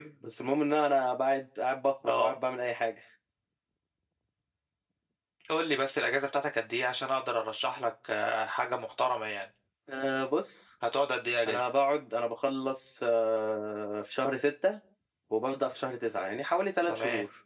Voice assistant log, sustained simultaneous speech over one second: none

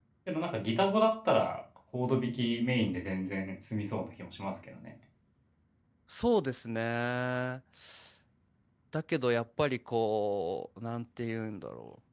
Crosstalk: none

